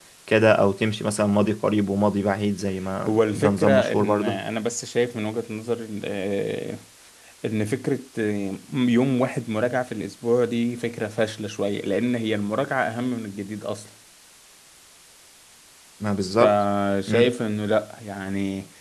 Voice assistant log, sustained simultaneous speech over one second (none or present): present